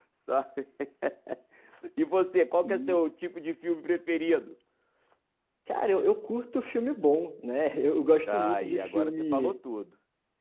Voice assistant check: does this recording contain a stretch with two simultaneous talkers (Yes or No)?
Yes